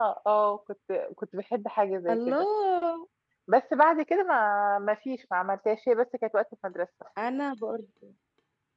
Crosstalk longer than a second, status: none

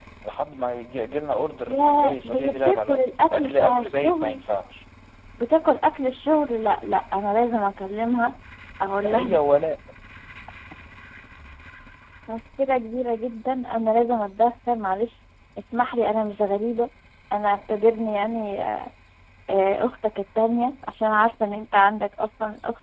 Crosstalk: present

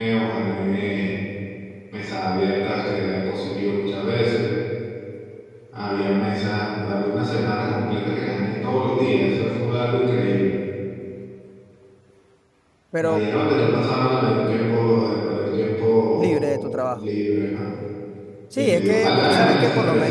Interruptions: present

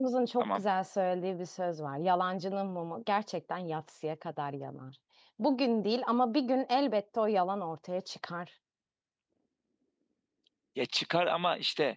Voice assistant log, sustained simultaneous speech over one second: none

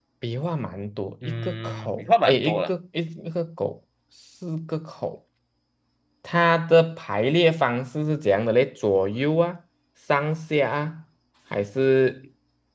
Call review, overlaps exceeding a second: present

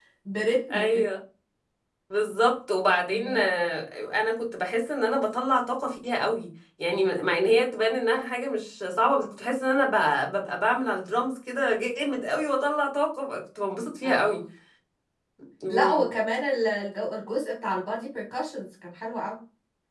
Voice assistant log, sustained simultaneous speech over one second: none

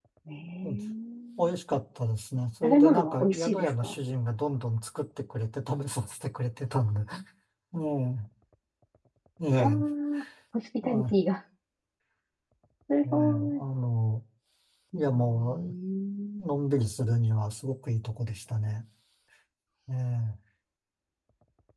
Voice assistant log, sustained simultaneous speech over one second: present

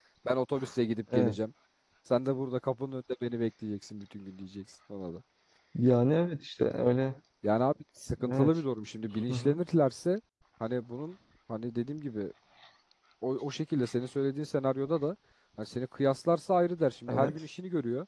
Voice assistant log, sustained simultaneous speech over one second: none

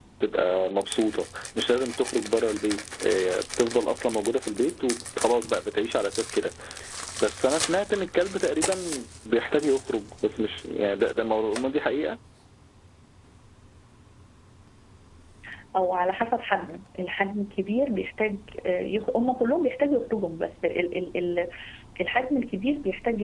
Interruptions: none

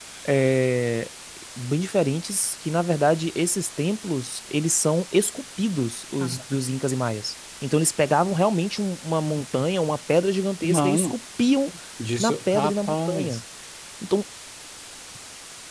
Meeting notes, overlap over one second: present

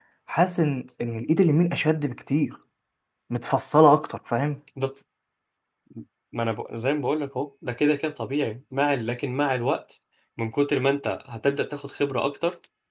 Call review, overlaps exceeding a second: none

